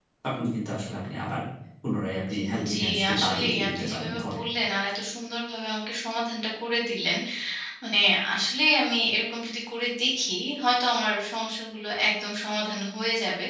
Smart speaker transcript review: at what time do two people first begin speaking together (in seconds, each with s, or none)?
2.4 s